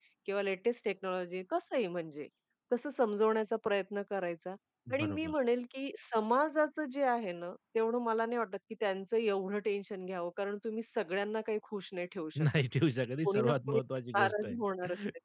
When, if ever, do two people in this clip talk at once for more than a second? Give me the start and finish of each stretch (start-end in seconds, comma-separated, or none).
none